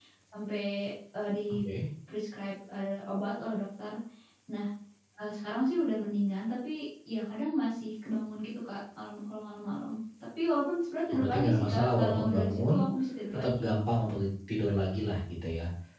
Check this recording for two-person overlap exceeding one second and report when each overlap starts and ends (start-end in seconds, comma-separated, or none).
11.1-12.8